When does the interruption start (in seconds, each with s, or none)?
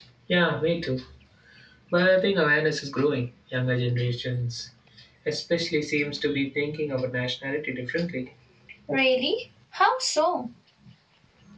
none